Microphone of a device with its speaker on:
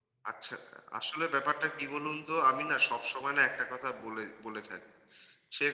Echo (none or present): none